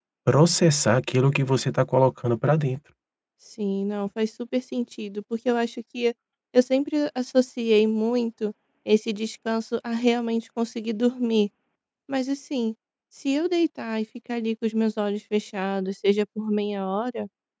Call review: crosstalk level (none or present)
none